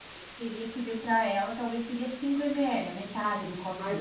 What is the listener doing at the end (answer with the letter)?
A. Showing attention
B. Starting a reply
B